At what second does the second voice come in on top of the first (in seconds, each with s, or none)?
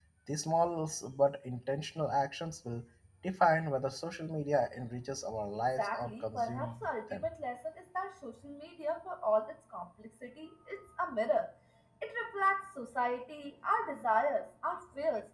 5.8 s